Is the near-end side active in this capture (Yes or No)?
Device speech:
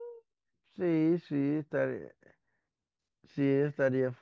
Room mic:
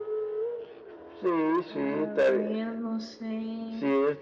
Yes